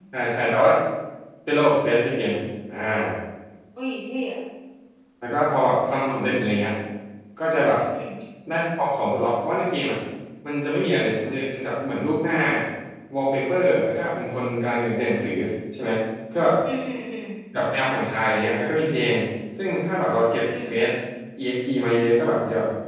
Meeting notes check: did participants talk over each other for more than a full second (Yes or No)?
No